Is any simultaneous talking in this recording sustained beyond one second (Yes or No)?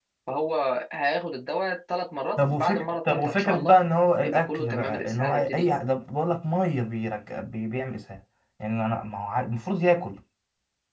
Yes